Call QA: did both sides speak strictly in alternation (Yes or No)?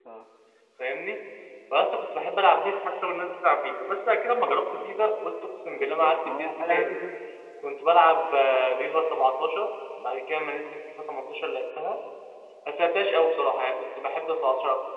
No